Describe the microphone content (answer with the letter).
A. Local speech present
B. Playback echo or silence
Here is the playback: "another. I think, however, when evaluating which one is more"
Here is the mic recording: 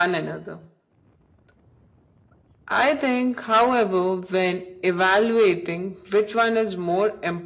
B